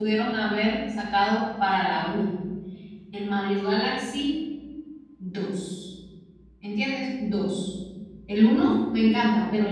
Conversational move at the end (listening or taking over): listening